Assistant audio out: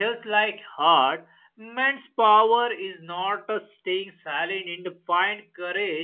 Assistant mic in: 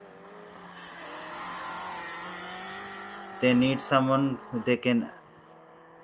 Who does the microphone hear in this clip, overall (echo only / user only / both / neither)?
user only